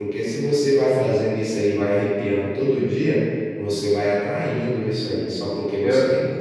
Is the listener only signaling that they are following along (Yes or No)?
Yes